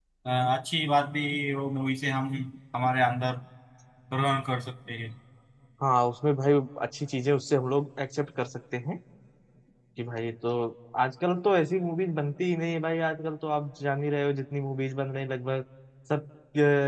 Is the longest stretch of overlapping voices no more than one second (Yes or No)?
Yes